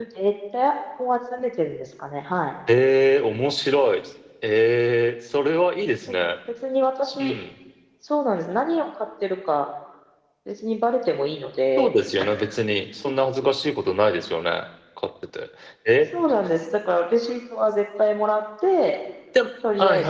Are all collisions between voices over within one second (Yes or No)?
Yes